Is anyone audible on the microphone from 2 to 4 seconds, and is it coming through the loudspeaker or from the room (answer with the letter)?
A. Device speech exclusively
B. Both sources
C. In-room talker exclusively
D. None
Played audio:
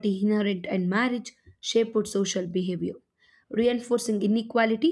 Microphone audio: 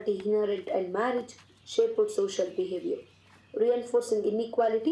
A